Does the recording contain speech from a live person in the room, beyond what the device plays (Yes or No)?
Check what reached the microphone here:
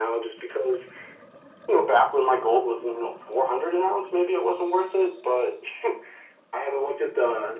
No